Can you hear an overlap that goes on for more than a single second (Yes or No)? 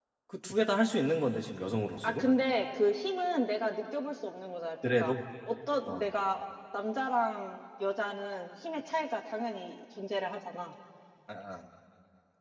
No